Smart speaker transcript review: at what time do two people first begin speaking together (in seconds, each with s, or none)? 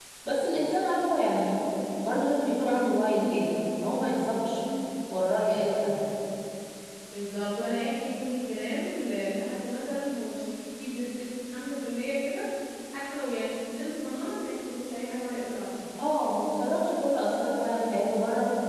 none